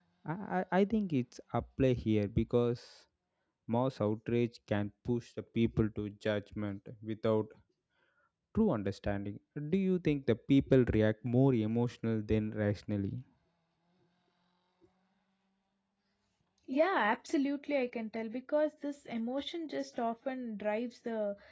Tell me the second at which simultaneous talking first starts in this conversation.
none

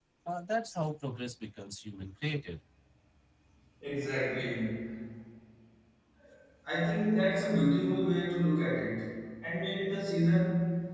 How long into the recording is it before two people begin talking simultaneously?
none

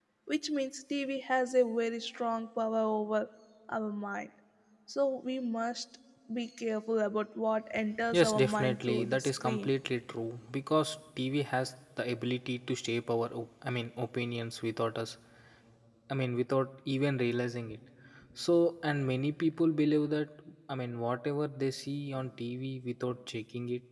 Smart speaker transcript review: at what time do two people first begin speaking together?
8 s

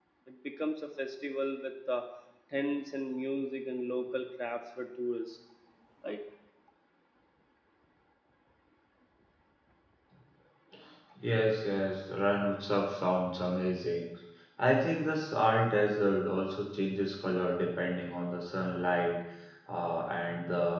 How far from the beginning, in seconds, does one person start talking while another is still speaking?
none

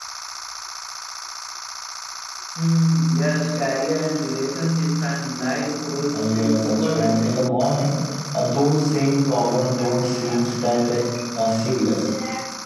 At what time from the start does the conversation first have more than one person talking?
6 s

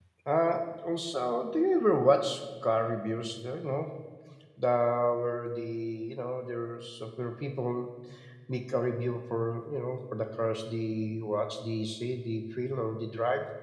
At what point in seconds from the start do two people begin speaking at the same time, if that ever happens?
none

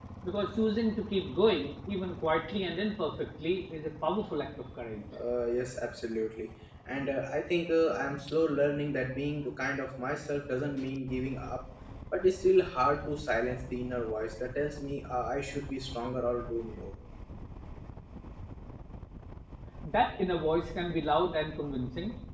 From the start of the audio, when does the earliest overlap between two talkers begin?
none

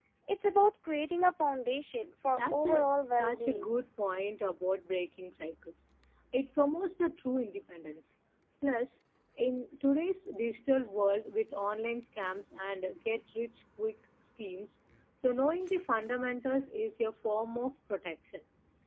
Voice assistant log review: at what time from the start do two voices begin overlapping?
2 s

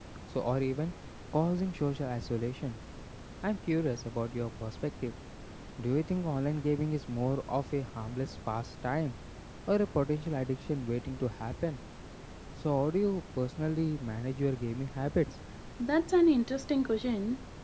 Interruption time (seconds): none

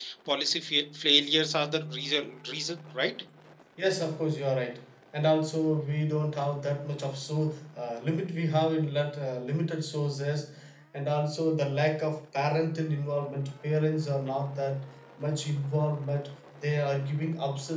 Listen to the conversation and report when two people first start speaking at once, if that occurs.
none

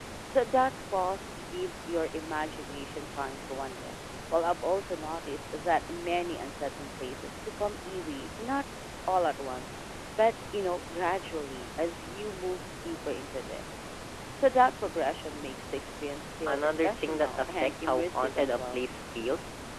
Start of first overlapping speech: 16 s

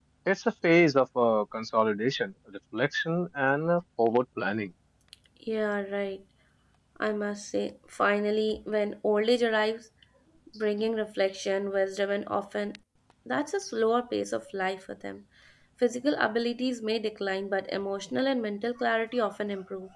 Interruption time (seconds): none

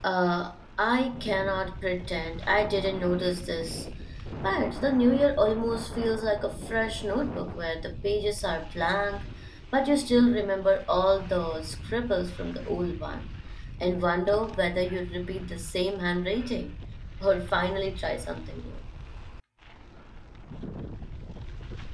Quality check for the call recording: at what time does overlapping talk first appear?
none

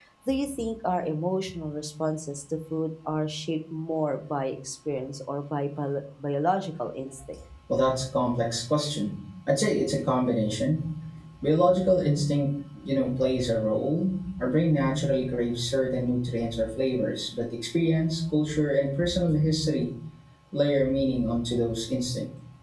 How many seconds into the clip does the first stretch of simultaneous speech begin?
none

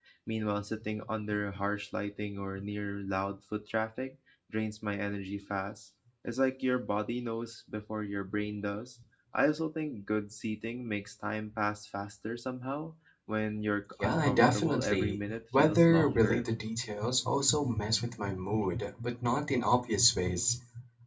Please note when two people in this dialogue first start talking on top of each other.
14 s

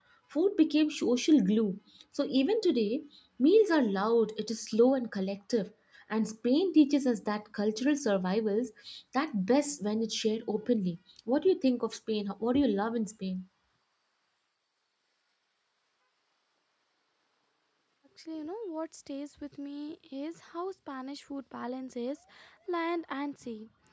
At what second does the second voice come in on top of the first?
none

